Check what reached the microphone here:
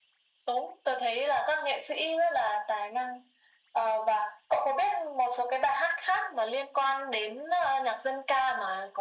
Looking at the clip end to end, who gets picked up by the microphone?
echo only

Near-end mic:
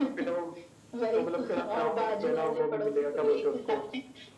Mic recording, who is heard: echo only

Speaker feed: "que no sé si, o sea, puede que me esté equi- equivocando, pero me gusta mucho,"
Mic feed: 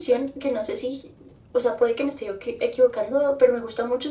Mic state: echo only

